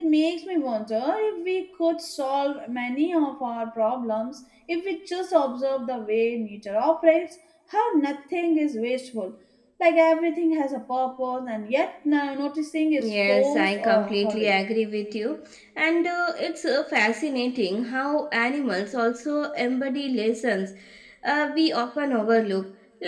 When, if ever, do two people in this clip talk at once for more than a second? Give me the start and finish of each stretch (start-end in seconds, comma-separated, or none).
13.0-14.5